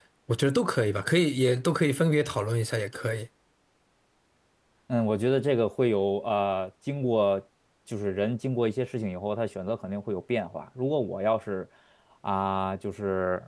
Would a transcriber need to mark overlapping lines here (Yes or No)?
No